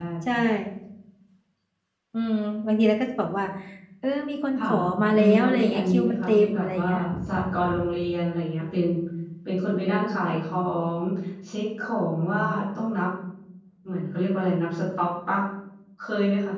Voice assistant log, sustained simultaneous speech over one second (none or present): present